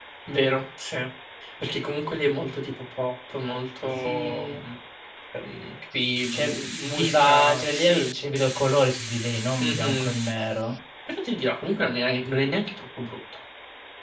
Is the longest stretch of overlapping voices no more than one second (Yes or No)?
No